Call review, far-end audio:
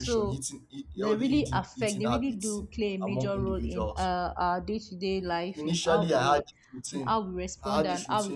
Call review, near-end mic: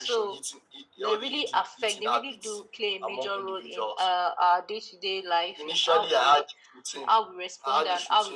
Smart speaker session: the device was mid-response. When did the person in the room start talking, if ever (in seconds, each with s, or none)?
none